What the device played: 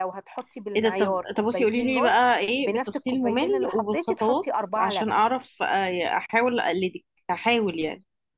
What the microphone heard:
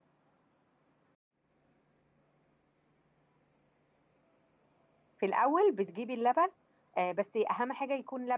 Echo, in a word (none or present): none